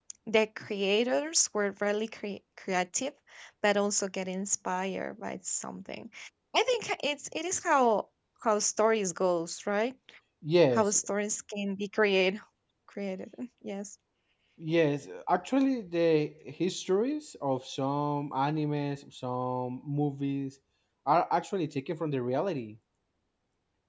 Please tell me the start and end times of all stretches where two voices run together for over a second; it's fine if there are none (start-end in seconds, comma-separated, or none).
none